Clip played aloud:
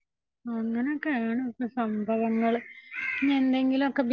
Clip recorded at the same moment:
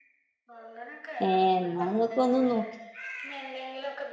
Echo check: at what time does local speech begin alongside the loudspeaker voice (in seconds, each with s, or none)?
1.2 s